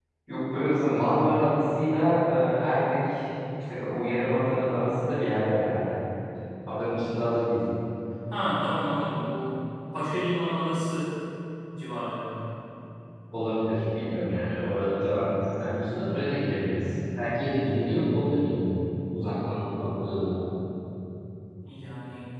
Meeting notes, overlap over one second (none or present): none